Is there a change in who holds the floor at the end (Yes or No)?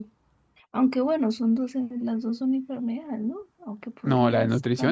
Yes